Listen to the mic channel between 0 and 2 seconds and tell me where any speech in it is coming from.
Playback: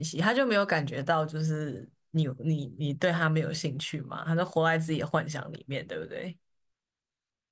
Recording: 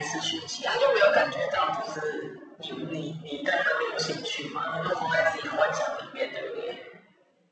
echo only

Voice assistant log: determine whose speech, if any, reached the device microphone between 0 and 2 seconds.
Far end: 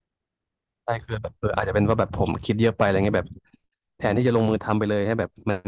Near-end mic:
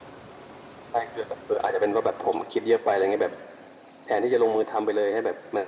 echo only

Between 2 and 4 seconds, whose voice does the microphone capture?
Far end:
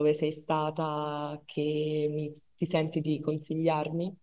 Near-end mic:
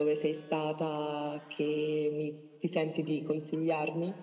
echo only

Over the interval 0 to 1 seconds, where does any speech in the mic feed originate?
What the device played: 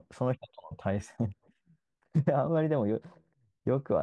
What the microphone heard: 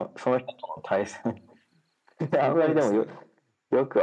echo only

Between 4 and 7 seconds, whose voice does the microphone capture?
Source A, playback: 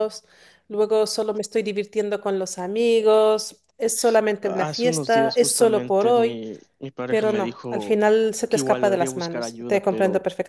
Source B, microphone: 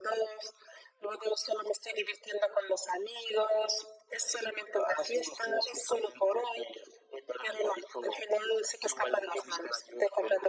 echo only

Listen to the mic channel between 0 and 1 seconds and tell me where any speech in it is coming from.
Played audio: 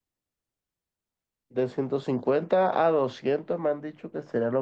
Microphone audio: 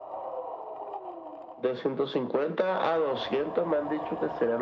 neither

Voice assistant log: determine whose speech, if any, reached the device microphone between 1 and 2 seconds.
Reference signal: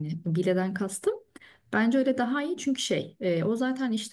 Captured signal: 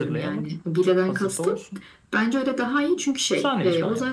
both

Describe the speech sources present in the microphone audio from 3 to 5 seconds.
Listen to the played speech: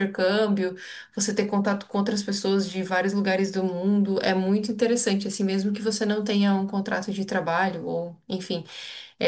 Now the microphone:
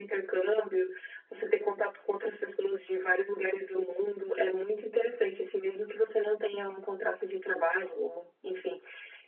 echo only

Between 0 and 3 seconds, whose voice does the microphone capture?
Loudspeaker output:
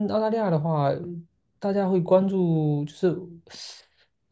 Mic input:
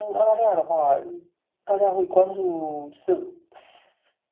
echo only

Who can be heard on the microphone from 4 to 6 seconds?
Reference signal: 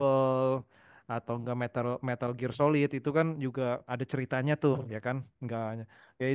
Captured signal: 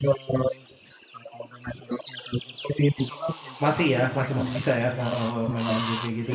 both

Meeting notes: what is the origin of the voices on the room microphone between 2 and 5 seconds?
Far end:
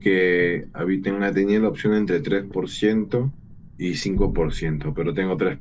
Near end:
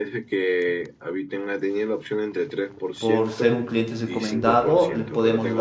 both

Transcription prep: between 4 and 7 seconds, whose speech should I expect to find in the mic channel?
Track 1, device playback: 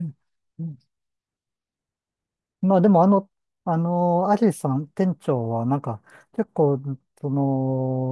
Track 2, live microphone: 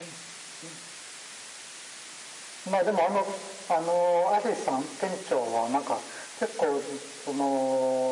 echo only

